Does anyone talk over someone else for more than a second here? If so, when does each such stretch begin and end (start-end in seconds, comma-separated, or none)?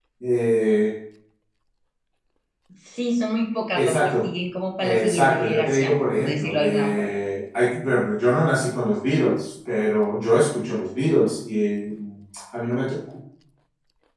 4.8-7.1